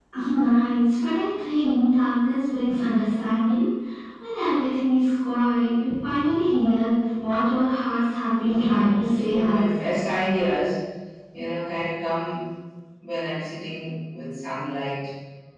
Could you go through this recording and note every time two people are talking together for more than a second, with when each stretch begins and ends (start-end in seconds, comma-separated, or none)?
8.4-9.8